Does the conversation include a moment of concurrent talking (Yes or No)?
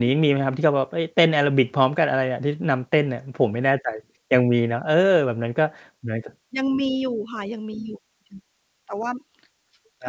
No